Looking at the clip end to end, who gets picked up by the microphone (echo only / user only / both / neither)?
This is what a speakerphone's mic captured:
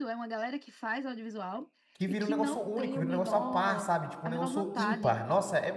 both